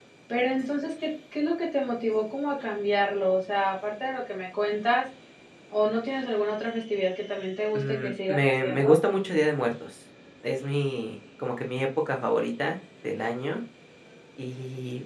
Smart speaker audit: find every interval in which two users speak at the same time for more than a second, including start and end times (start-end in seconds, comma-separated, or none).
7.8-9.0